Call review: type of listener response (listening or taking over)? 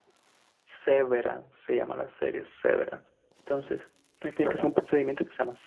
listening